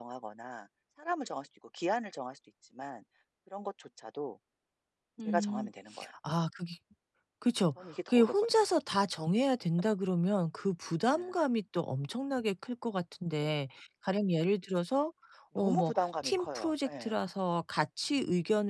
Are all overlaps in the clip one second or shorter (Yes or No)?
No